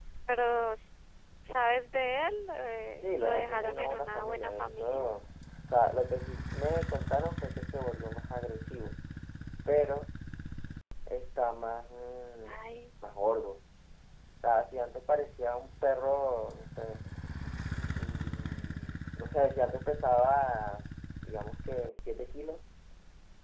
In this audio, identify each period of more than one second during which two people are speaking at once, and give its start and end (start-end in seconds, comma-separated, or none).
3.0-5.0